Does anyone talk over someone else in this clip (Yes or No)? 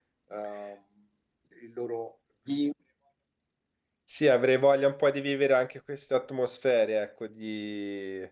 No